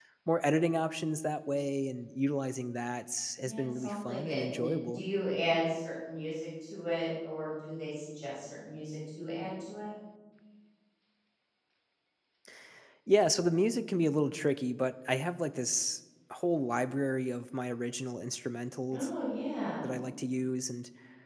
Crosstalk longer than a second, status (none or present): present